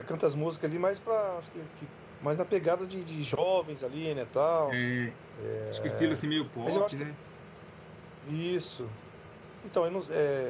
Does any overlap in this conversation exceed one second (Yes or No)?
No